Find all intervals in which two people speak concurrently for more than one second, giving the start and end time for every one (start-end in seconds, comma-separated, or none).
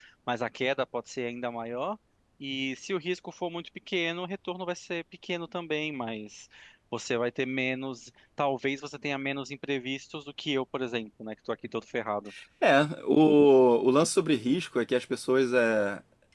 none